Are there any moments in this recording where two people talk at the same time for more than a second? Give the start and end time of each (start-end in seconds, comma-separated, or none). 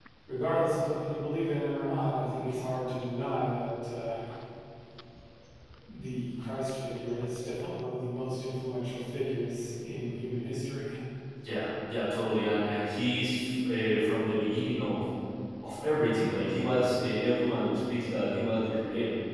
none